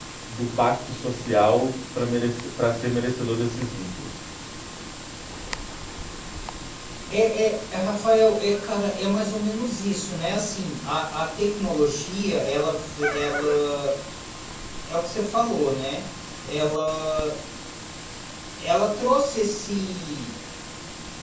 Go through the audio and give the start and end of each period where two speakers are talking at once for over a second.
none

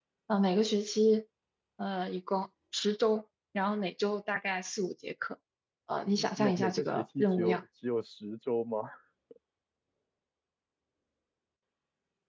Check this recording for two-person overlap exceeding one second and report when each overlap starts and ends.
6.1-7.6

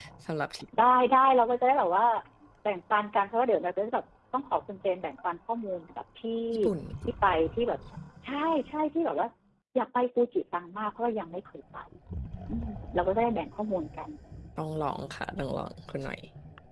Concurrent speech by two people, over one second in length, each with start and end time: none

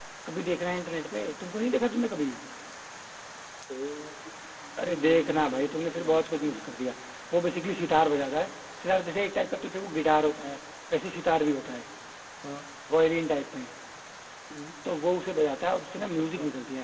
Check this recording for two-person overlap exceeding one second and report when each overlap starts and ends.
4.8-6.6

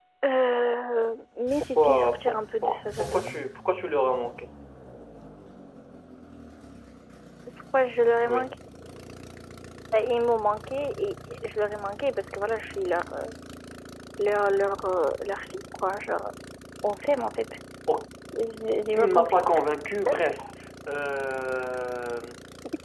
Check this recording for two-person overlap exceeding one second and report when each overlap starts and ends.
1.8-3.2

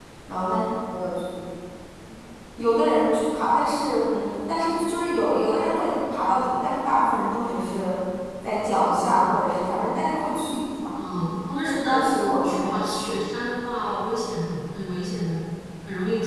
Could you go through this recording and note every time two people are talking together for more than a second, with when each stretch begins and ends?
11.6-13.2

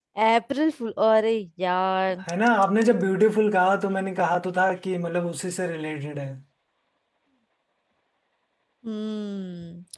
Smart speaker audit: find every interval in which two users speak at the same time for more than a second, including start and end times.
none

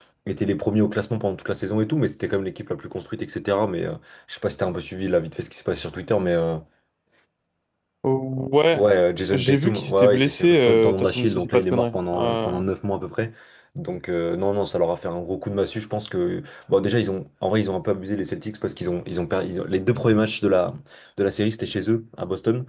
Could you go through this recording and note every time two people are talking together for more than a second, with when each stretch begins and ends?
9.3-12.6

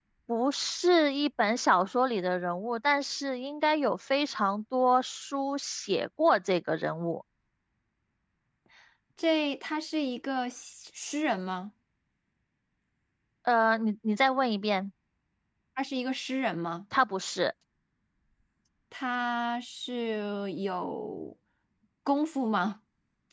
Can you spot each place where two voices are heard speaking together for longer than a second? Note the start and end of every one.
none

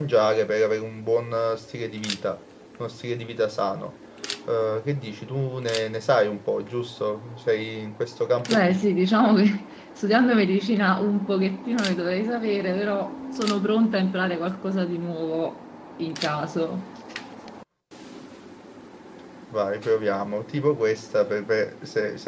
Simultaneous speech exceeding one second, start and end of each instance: none

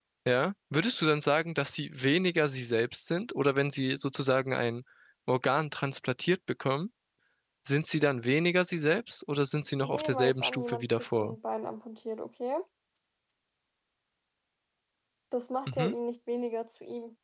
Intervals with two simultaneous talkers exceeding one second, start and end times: 9.8-11.4

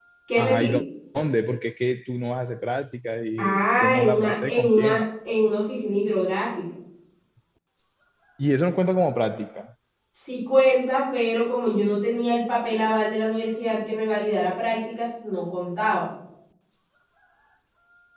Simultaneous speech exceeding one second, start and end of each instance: 3.4-5.0

